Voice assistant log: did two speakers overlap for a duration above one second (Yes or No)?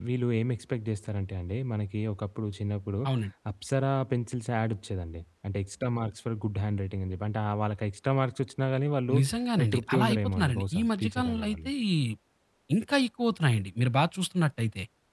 Yes